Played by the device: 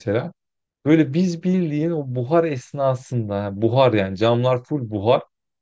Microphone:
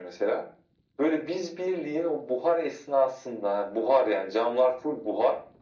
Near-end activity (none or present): none